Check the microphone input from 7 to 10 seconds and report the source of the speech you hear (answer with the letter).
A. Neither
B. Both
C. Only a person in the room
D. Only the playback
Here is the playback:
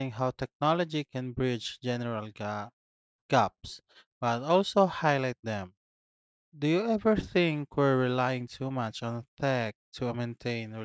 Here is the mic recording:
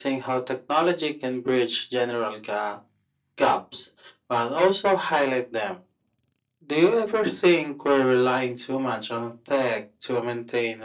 D